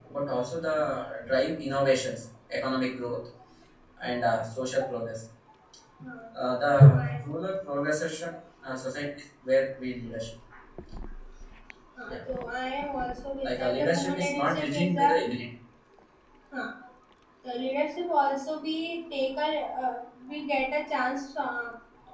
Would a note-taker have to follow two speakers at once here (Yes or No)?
Yes